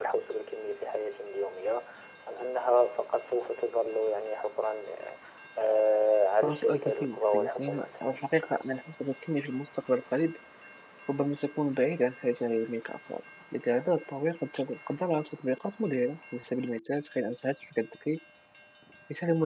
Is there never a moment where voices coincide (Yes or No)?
No